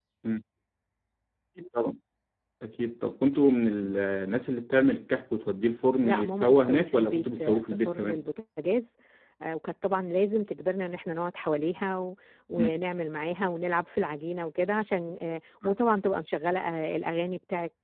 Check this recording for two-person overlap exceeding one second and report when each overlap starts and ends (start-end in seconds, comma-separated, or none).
6.0-8.2